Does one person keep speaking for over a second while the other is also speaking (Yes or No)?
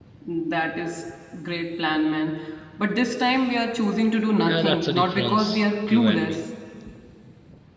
Yes